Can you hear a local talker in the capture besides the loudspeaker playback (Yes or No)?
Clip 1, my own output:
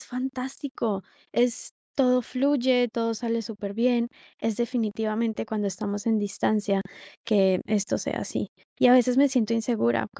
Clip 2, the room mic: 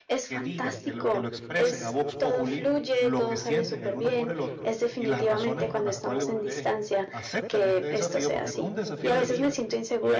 Yes